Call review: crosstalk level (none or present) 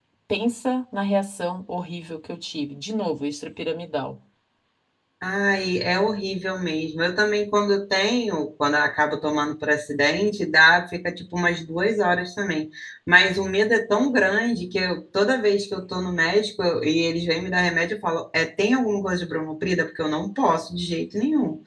none